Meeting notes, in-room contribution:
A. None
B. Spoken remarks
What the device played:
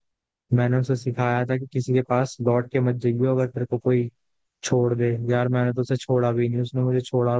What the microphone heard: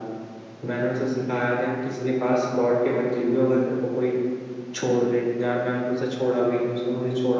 A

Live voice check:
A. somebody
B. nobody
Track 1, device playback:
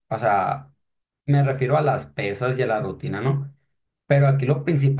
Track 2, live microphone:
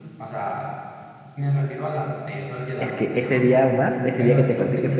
A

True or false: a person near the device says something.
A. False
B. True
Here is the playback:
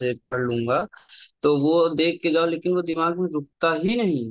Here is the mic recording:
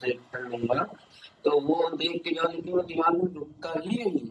A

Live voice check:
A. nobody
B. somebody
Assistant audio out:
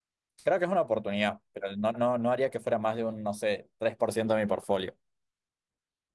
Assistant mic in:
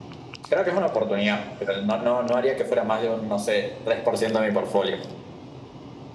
A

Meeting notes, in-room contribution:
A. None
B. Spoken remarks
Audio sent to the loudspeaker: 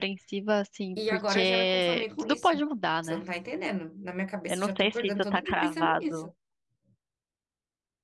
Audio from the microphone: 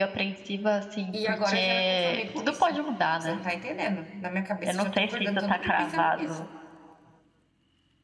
A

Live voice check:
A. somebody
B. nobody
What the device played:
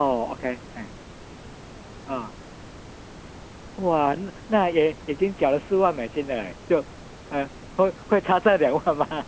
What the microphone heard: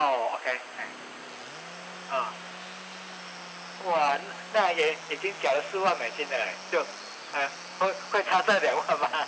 B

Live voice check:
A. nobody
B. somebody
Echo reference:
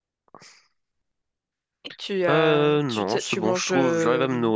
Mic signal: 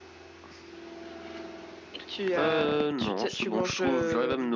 A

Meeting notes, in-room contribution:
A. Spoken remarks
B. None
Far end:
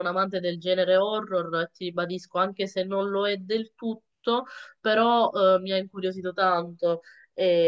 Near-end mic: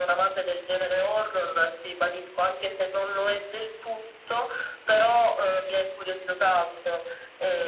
B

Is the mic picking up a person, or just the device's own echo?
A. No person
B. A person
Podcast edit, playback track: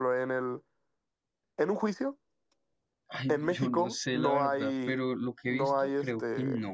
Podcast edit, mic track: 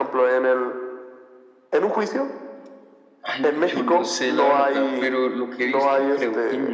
A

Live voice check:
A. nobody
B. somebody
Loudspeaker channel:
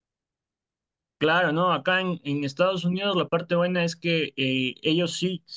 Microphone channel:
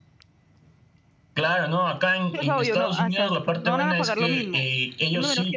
B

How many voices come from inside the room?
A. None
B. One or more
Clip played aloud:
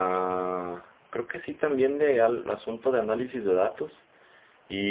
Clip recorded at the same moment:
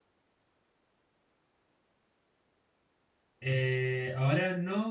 B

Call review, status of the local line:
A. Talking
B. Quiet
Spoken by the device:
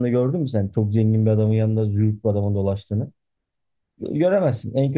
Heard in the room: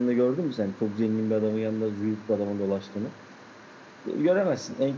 B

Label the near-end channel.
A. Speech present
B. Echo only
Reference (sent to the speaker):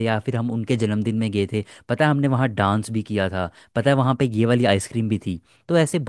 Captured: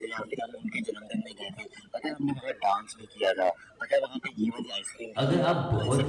A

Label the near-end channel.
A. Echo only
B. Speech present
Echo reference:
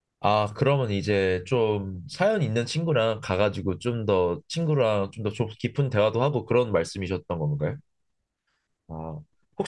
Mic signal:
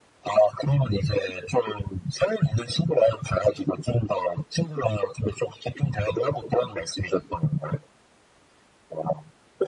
A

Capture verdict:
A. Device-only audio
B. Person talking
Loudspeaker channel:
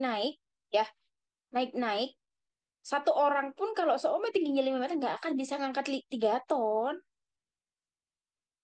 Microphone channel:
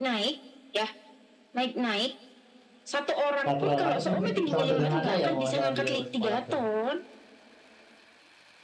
B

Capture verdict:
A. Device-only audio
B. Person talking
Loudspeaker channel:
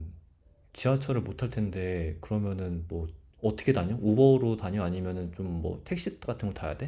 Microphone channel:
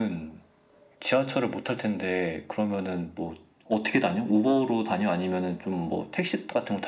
A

